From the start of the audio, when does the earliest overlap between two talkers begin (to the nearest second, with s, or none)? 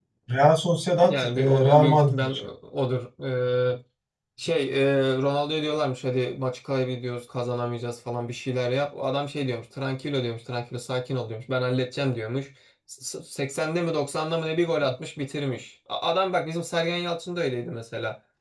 1 s